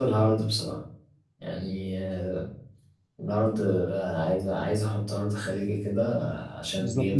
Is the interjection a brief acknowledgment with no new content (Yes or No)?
No